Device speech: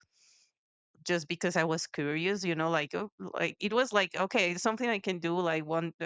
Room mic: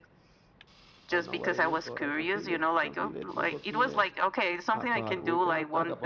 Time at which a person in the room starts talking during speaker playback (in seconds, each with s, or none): 1.1 s